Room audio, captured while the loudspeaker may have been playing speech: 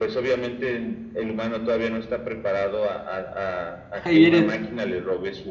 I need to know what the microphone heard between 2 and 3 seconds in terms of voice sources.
echo only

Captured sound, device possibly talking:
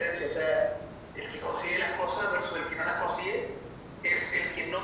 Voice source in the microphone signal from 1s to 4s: echo only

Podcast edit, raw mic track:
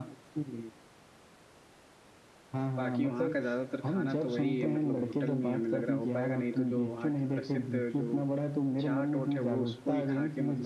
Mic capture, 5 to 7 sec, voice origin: both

